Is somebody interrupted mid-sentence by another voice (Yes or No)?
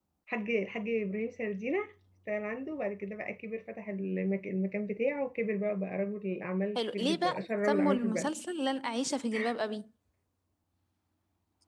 Yes